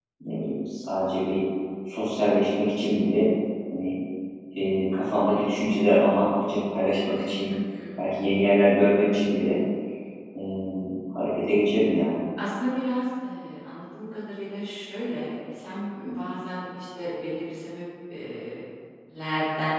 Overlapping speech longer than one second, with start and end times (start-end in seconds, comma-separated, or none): none